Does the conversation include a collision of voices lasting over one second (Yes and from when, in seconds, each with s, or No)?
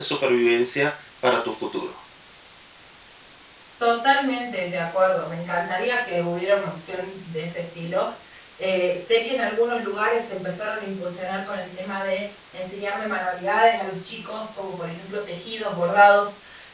No